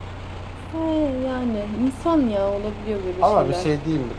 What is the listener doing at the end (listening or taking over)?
taking over